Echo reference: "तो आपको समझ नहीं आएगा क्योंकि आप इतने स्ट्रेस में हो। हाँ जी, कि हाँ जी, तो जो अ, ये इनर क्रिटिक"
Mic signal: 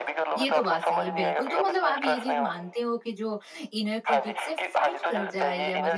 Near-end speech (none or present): present